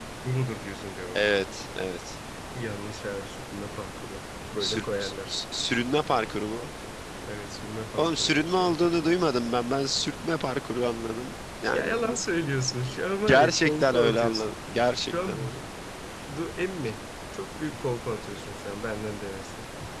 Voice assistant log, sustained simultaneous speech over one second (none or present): present